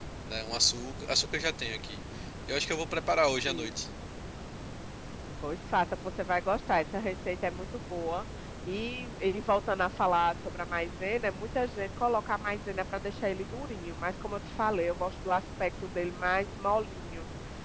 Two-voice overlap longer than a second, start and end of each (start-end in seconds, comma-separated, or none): none